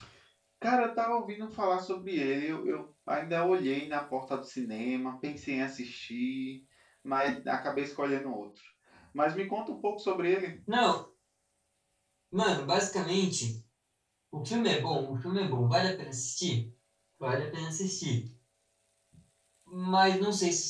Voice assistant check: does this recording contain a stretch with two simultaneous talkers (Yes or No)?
No